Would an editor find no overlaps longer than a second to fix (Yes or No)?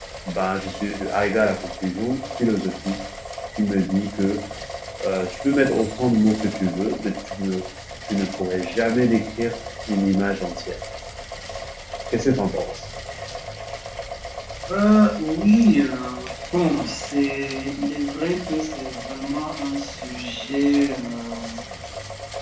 Yes